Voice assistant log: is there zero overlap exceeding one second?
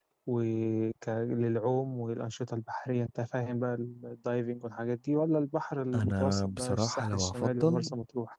No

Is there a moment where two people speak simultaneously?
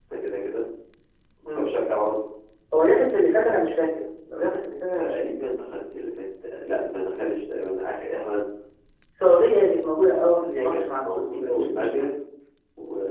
Yes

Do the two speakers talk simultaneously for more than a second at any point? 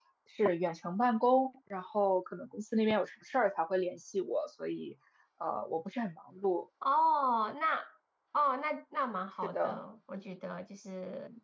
No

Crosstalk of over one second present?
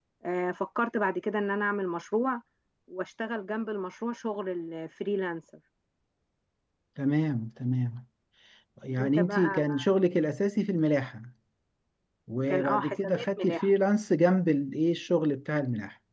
Yes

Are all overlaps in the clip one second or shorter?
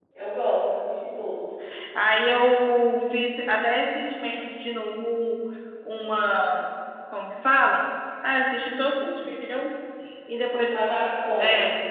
Yes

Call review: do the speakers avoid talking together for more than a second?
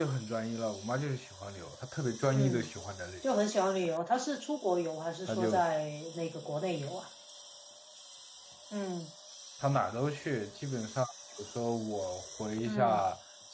Yes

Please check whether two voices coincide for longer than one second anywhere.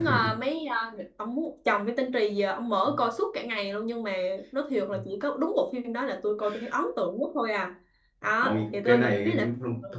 Yes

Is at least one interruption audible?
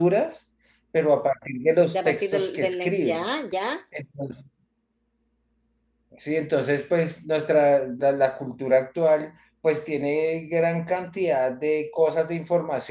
Yes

